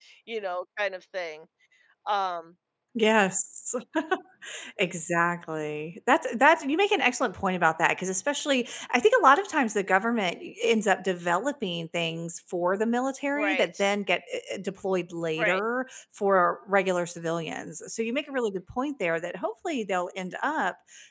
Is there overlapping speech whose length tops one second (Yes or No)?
No